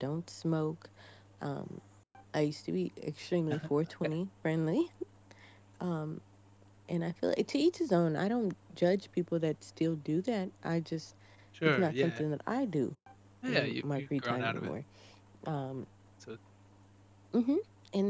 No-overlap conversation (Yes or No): No